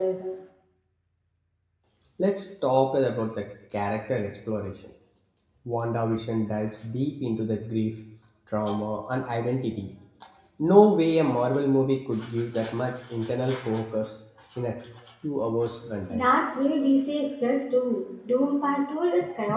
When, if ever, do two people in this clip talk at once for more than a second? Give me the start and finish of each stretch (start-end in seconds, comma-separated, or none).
none